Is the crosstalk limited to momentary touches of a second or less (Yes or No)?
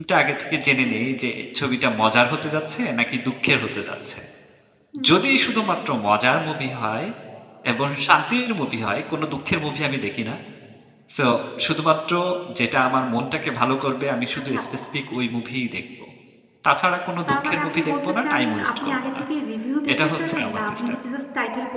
No